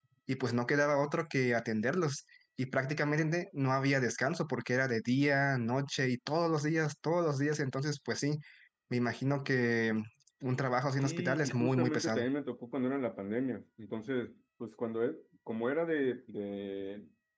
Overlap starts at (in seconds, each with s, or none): 11.0 s